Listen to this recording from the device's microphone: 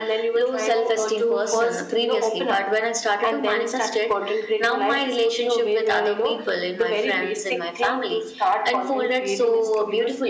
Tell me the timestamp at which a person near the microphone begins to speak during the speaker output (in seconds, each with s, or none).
none